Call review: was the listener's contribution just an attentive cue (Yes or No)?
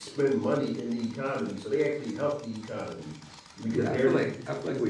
No